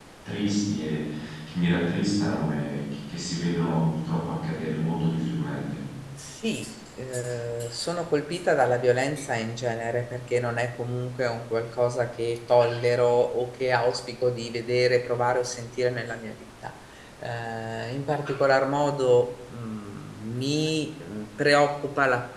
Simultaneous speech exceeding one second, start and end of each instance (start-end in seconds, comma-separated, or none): none